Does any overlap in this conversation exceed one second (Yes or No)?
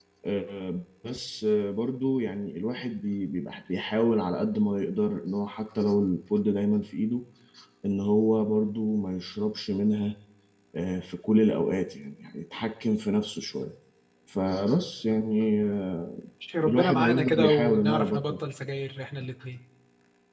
Yes